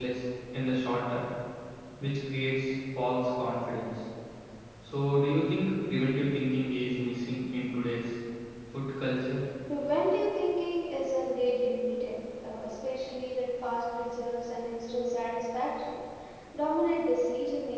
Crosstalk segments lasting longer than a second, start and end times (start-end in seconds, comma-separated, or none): none